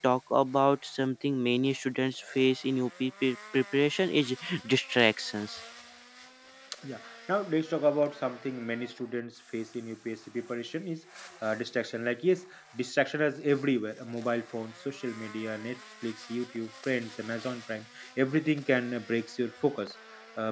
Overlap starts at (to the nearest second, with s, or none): none